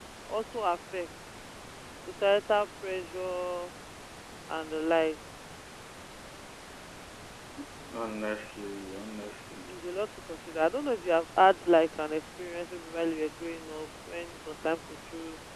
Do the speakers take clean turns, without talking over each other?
Yes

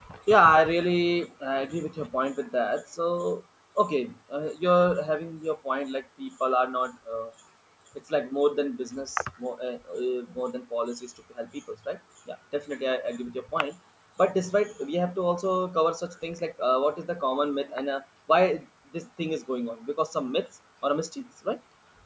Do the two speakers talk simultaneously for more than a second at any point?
No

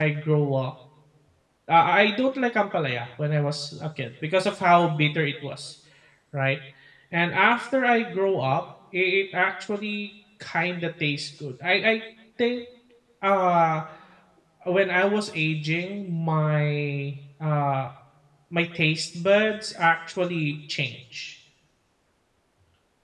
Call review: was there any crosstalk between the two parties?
No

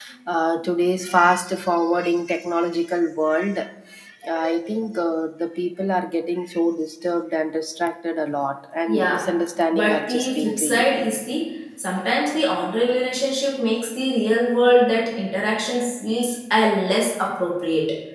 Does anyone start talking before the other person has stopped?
Yes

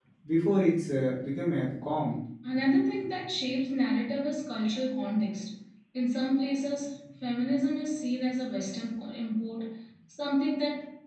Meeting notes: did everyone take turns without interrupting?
Yes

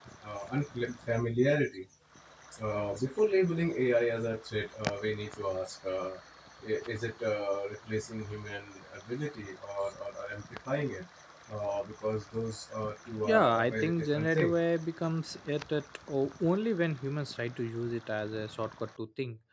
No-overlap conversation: No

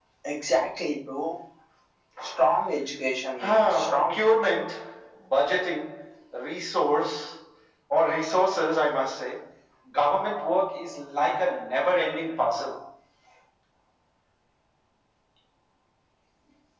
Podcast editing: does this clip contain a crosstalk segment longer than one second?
Yes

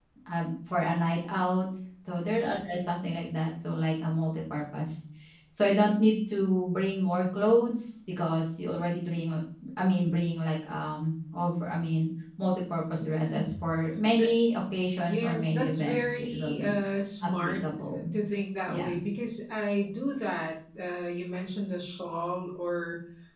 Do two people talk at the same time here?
Yes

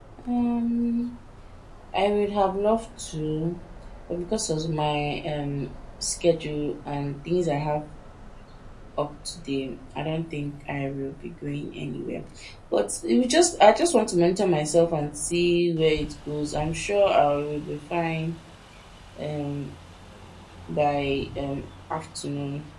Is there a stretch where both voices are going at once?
No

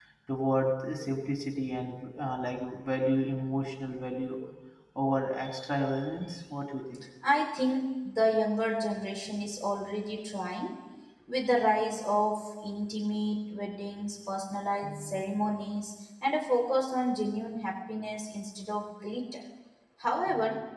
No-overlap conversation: Yes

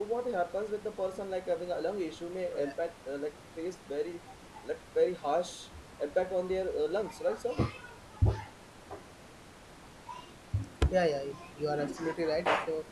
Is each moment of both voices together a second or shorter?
Yes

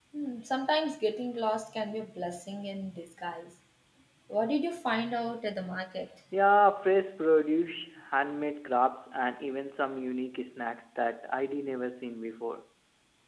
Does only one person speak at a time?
Yes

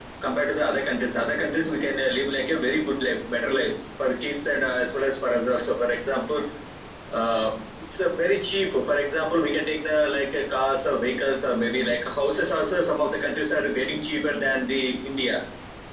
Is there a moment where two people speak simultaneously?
No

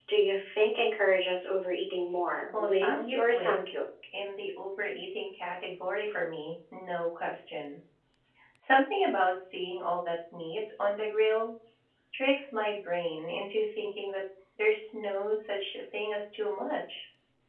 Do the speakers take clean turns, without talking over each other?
No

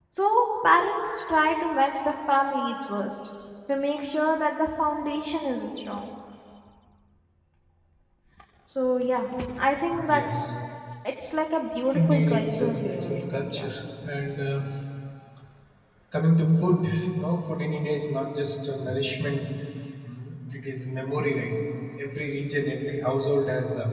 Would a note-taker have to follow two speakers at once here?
Yes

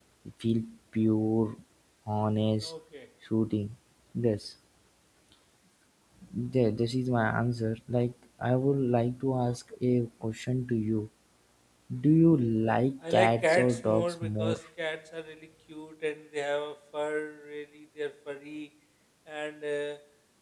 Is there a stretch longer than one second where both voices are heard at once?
Yes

